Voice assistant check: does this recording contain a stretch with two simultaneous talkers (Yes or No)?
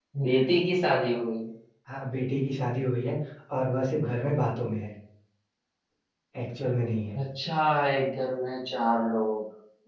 No